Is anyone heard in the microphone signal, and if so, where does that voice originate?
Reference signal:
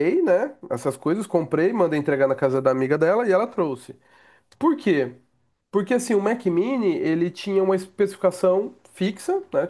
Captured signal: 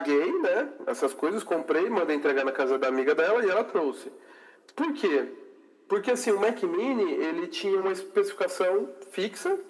echo only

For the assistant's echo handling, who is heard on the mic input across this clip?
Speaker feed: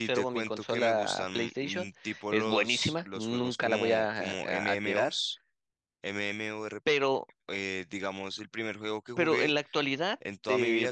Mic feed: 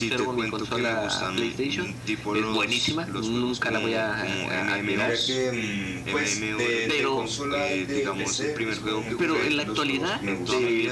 both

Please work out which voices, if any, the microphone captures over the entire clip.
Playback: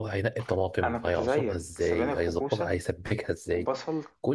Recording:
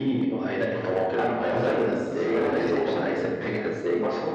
both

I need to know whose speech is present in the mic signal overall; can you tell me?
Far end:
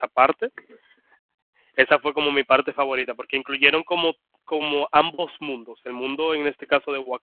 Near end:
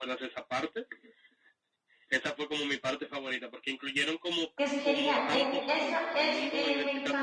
both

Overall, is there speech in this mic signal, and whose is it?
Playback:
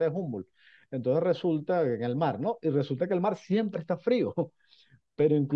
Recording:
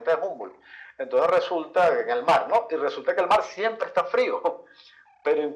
echo only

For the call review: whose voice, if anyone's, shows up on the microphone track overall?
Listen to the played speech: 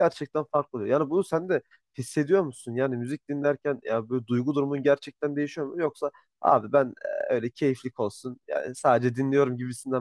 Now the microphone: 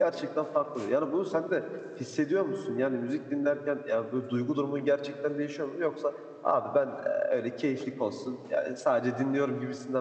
echo only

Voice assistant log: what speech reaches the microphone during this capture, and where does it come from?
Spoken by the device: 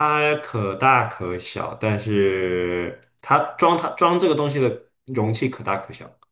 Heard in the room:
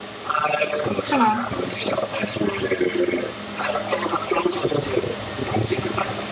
both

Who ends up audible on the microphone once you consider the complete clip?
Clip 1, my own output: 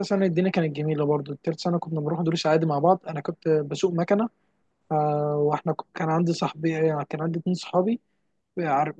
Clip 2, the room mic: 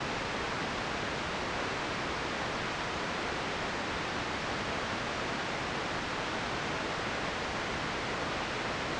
neither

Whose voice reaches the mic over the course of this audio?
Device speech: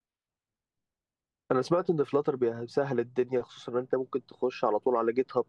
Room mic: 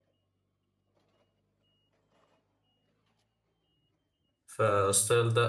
user only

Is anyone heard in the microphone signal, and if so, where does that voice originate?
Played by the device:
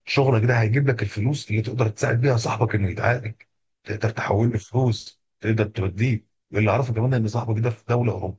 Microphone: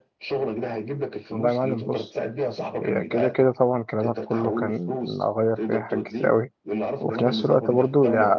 both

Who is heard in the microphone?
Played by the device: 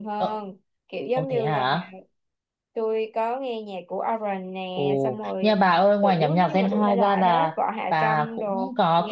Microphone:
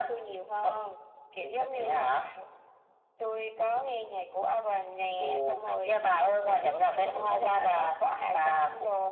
echo only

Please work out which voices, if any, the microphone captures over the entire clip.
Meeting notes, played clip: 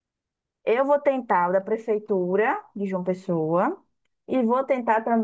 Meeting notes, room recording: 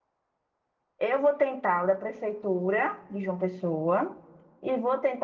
echo only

